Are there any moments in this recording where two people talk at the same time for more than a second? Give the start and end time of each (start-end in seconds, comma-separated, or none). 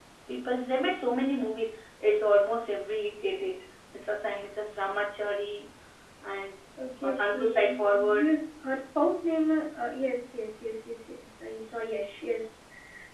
7.0-8.3